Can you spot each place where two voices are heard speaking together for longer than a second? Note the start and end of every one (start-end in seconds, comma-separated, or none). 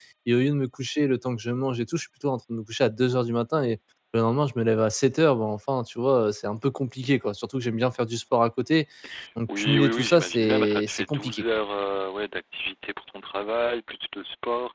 9.6-11.6